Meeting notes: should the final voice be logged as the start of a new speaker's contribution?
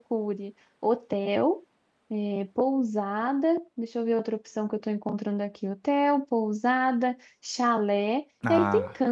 No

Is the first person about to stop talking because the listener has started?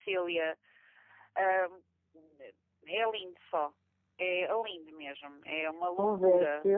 Yes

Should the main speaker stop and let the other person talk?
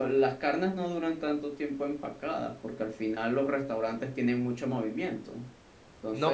Yes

